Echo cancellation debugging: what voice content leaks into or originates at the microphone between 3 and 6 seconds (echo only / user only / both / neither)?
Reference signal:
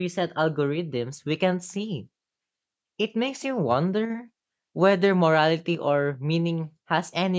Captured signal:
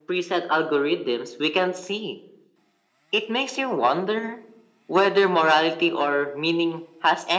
echo only